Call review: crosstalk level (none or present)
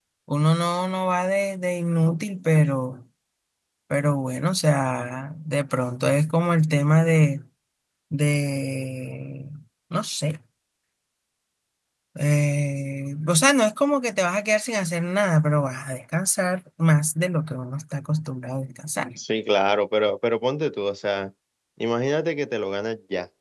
none